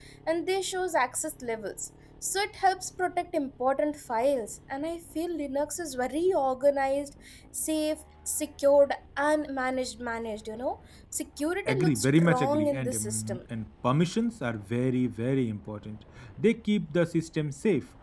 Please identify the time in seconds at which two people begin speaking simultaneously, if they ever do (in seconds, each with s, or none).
11.7 s